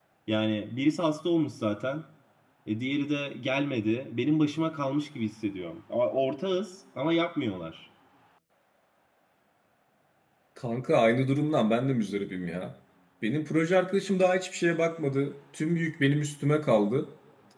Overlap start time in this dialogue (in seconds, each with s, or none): none